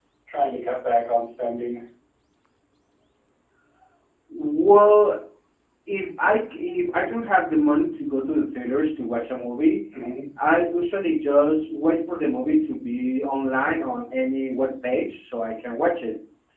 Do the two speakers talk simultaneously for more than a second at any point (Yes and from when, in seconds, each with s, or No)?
No